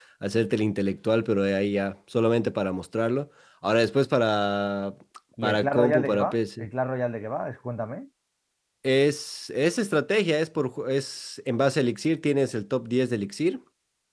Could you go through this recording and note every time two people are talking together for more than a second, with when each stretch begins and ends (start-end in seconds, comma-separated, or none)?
5.4-6.7